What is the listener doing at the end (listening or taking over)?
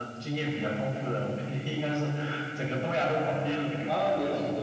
taking over